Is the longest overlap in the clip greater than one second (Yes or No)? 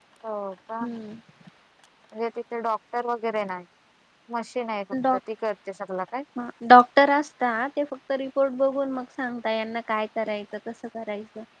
No